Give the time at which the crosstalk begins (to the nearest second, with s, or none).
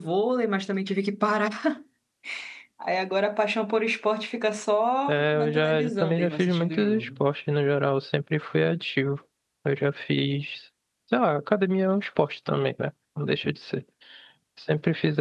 5 s